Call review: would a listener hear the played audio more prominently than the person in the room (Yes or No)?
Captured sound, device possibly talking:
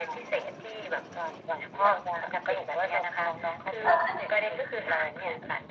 No